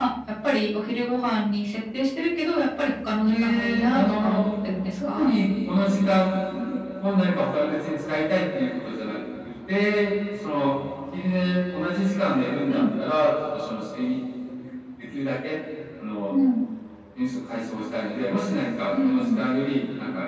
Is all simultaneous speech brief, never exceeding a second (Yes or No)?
No